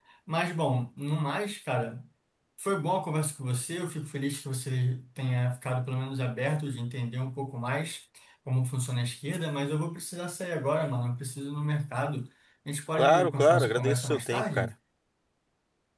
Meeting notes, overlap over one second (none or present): present